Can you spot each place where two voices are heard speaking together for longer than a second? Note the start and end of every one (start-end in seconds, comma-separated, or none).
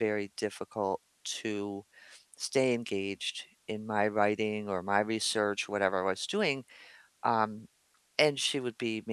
none